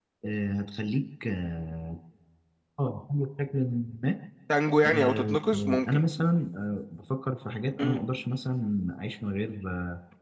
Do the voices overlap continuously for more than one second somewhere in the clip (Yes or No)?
No